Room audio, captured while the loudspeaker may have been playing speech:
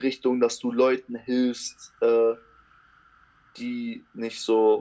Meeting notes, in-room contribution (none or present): none